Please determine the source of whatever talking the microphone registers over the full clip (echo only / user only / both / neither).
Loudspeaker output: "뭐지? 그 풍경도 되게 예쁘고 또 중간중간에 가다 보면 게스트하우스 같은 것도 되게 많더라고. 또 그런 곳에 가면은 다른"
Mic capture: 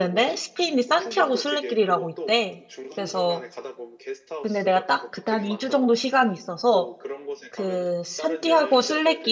both